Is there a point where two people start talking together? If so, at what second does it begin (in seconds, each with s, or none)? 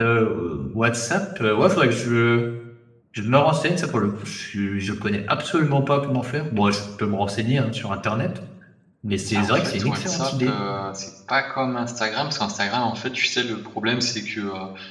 9.3 s